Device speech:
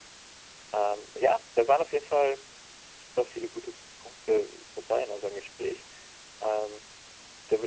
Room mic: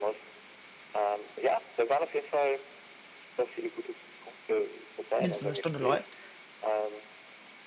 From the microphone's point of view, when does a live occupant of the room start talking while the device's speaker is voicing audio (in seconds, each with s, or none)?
5.2 s